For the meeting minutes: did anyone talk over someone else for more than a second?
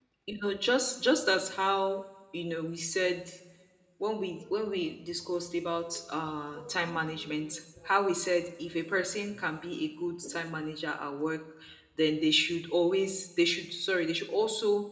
No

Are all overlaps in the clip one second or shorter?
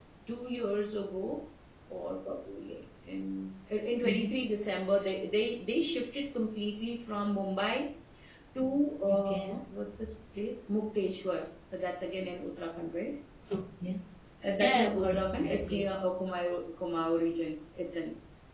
No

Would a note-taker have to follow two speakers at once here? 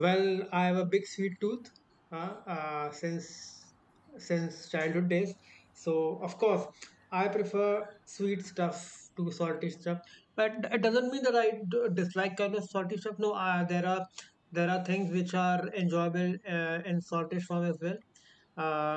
No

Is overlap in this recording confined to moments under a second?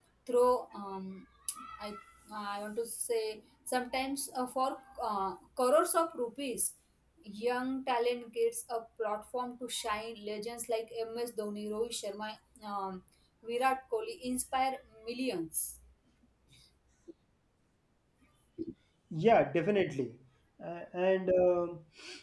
Yes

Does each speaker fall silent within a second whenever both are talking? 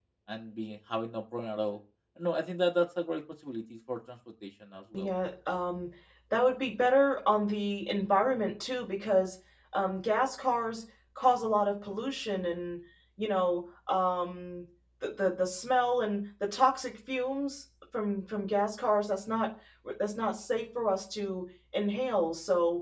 Yes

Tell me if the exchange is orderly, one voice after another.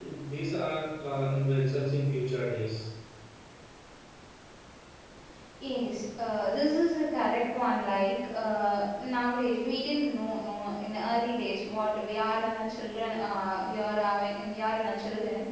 Yes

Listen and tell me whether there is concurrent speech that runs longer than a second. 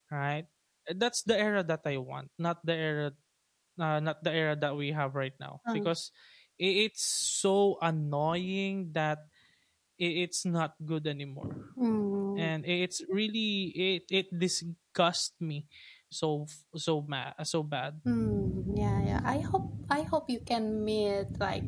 No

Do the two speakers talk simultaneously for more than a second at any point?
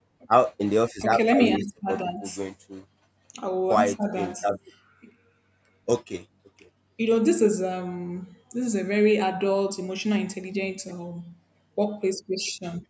Yes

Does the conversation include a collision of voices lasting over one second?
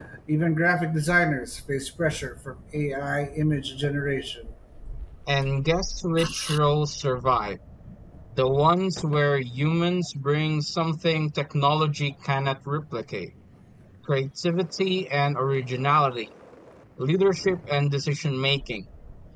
No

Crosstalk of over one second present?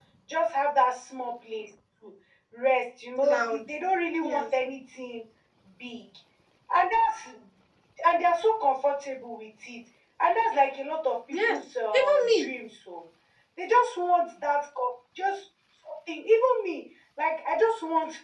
No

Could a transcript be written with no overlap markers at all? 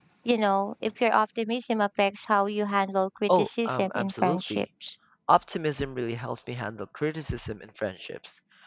No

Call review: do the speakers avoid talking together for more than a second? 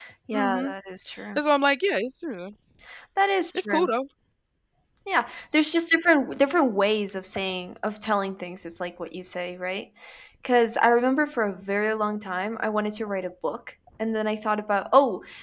Yes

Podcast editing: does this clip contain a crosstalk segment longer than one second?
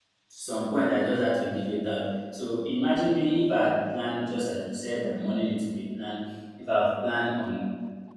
No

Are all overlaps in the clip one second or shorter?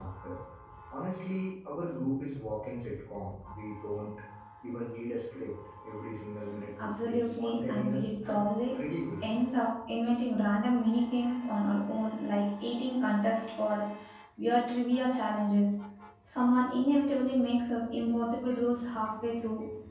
No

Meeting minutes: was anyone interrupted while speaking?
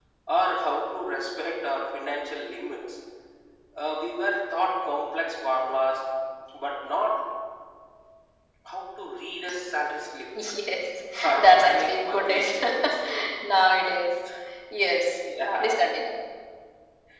Yes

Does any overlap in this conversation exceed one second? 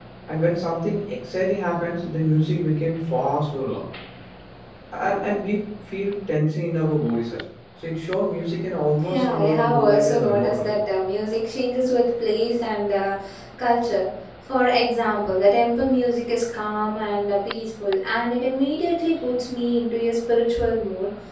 Yes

